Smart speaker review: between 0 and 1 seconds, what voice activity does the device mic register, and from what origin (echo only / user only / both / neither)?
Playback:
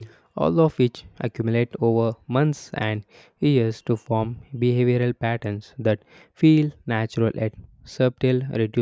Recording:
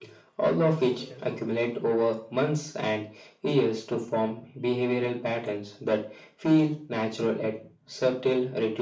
both